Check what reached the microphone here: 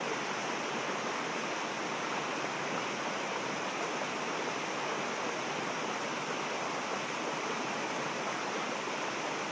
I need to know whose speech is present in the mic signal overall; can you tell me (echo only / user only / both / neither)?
neither